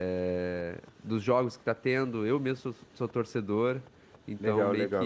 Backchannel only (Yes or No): No